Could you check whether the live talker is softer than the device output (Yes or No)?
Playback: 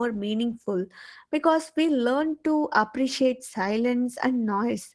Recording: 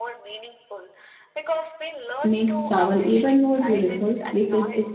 No